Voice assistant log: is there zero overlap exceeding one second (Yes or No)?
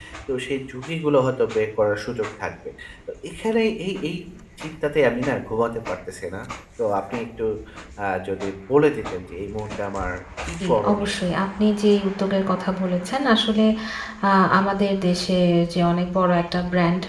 Yes